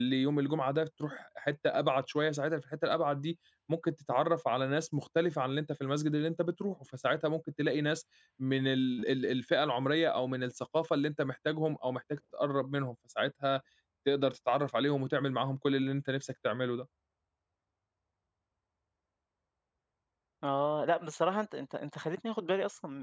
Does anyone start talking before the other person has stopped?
No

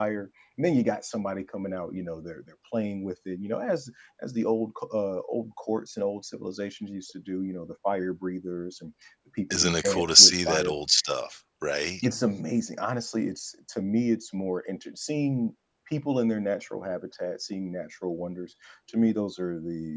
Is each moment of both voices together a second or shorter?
No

